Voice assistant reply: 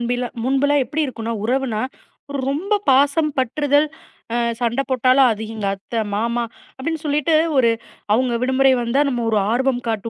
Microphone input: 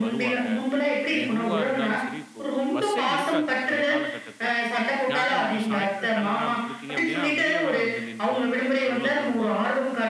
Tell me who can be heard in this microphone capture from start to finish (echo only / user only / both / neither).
both